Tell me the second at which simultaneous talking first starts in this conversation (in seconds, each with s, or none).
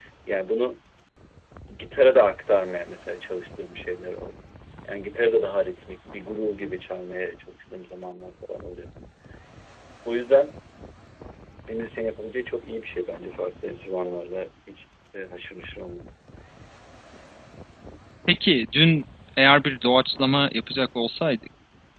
none